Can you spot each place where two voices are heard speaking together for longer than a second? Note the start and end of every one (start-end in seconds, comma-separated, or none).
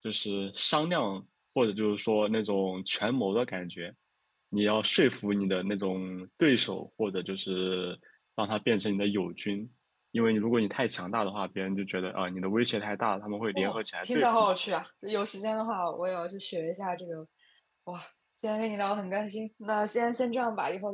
13.5-14.8